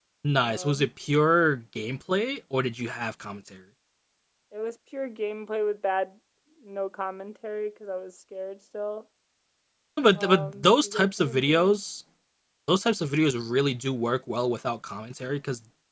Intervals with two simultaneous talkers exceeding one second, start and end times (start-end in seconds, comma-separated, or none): 10.2-11.8